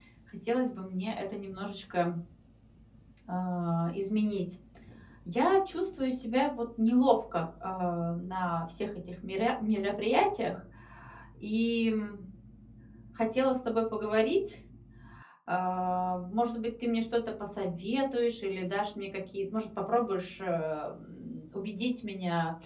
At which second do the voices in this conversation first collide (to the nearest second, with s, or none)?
none